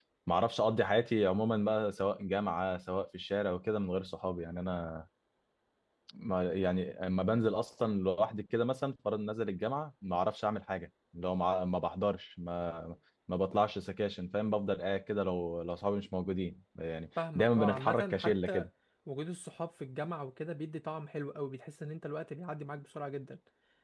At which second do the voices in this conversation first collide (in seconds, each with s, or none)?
17.2 s